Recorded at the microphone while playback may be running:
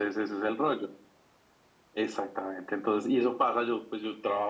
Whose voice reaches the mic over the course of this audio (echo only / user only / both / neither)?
echo only